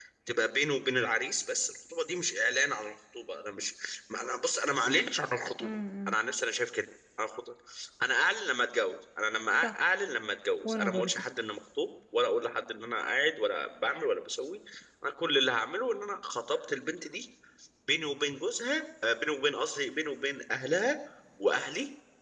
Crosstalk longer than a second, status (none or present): none